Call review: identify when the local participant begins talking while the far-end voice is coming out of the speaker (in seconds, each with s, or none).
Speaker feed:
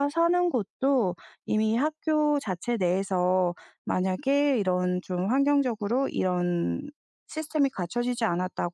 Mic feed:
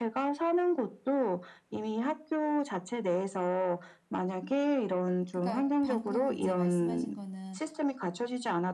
5.3 s